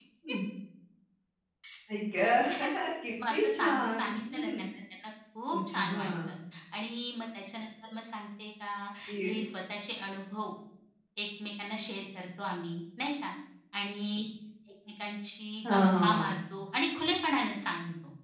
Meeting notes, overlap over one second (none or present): present